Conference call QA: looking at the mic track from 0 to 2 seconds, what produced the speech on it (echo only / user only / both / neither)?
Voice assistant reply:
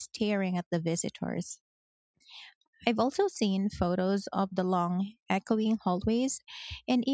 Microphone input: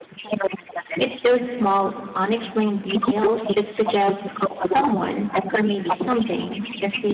both